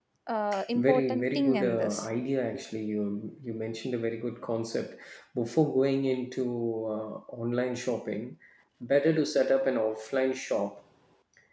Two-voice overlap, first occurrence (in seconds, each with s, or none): 0.8 s